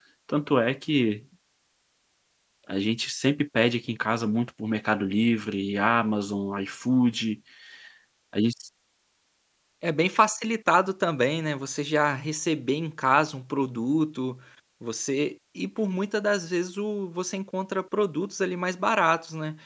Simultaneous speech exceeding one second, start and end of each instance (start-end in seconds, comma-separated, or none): none